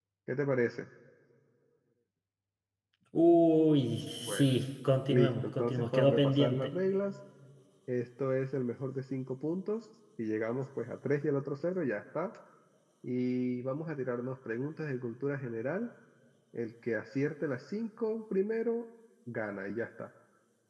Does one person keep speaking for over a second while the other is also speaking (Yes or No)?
Yes